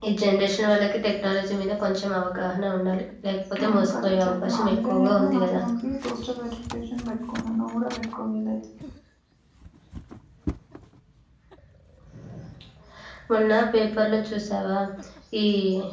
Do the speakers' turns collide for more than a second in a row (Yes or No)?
Yes